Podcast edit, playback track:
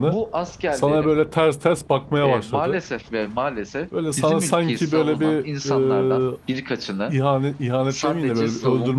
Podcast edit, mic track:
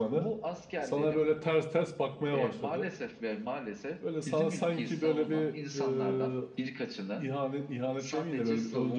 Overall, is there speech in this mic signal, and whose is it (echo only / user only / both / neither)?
echo only